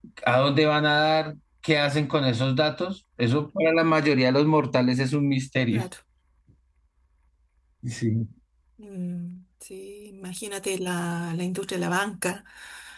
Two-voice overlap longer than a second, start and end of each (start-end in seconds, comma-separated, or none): none